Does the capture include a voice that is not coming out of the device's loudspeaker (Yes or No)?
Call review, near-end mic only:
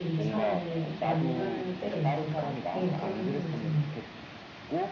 Yes